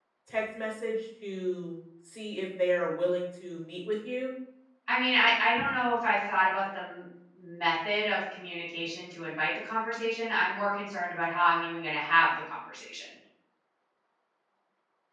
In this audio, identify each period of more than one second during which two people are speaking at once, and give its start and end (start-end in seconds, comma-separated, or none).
none